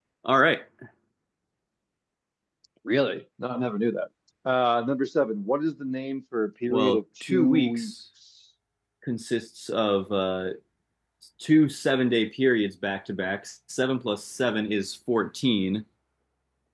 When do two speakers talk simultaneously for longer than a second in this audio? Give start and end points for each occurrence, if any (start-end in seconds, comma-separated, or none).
6.7-7.9